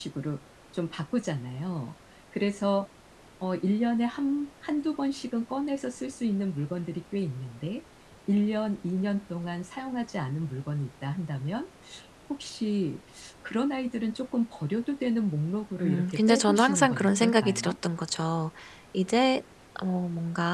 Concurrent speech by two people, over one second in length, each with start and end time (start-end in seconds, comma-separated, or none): 15.8-17.8